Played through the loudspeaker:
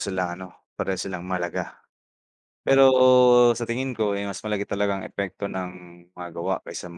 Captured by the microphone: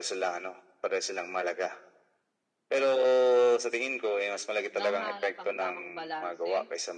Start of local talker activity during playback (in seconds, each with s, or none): 4.8 s